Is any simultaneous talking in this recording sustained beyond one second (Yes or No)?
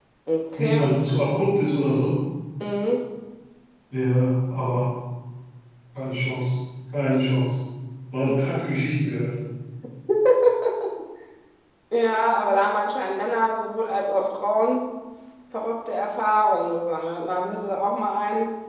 No